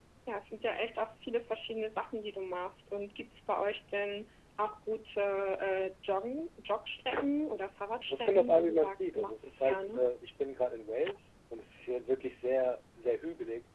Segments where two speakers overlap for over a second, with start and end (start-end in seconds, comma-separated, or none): 8.0-10.0